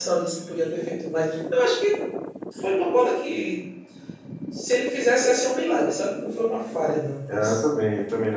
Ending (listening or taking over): taking over